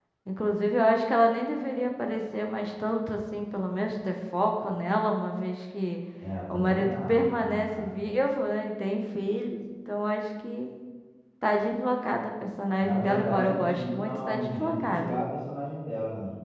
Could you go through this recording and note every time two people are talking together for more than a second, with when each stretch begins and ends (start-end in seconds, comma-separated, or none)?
6.5-8.0, 12.8-15.2